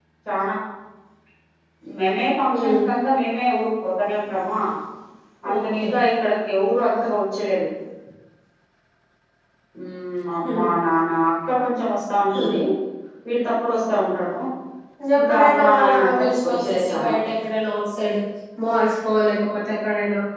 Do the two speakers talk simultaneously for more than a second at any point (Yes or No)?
Yes